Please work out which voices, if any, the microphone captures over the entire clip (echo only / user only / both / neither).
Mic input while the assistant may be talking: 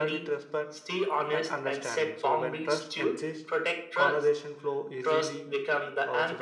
both